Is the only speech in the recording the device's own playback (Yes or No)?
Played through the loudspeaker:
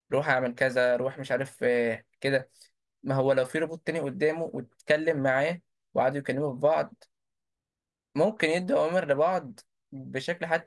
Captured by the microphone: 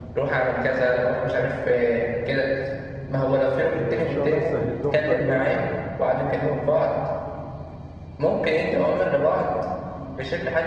No